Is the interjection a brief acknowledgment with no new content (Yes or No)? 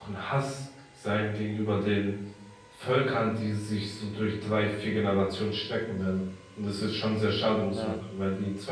Yes